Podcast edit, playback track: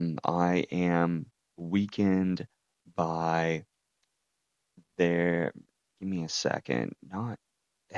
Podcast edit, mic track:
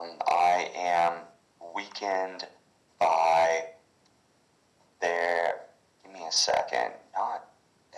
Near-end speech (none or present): none